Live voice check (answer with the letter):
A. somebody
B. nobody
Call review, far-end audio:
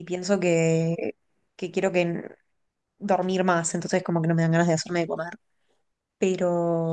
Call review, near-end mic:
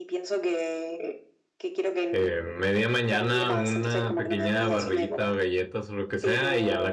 A